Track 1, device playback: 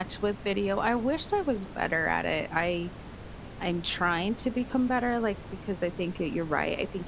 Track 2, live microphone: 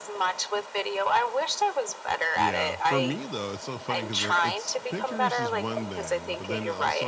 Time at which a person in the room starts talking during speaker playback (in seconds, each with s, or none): 2.3 s